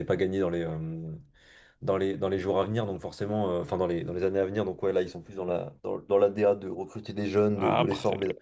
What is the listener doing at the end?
taking over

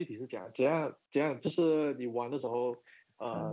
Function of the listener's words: listening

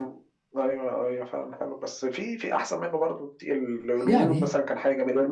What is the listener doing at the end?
listening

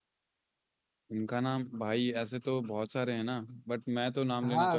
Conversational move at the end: taking over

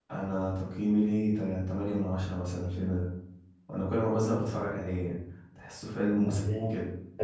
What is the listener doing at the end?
taking over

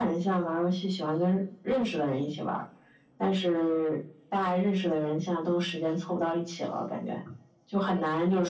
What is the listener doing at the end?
listening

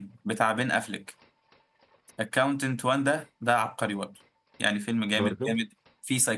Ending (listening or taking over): listening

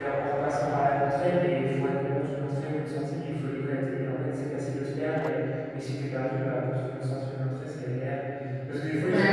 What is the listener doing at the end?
listening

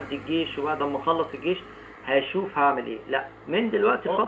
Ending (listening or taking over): listening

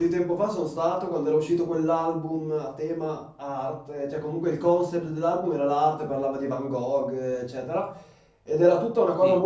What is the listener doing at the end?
listening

